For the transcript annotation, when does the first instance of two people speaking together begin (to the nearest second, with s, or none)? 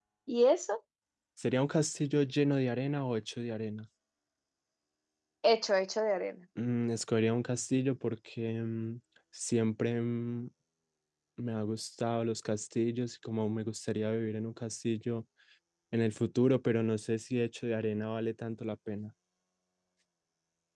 none